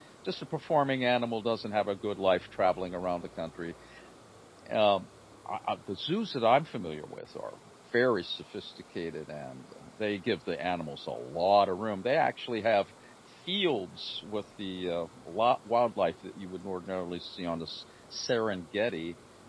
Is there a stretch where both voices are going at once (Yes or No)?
No